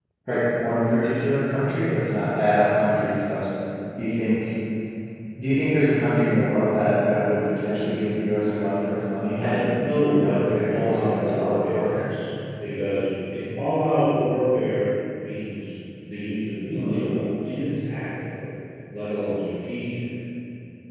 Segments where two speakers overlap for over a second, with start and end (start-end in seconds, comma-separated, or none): 10.1-12.1